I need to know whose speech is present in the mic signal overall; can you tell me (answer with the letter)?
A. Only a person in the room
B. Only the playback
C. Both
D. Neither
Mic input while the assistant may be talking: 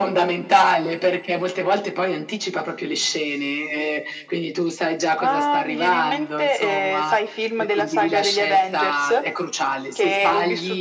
B